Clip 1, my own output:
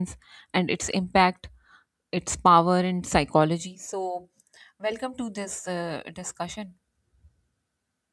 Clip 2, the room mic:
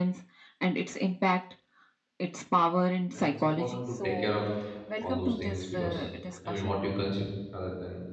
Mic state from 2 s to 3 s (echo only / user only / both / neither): echo only